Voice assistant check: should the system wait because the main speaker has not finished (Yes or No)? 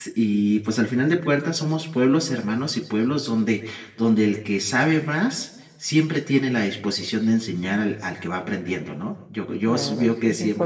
No